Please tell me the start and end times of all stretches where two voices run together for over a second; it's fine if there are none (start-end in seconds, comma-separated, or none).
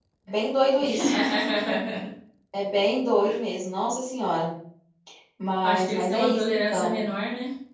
5.6-7.0